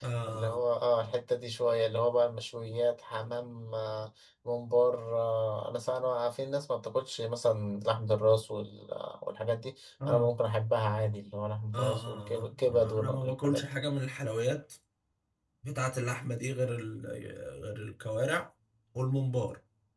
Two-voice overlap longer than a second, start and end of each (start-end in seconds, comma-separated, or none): 11.7-13.6